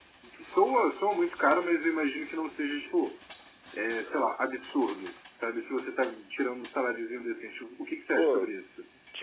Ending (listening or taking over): taking over